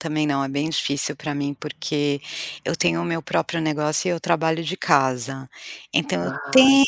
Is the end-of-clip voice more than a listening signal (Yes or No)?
No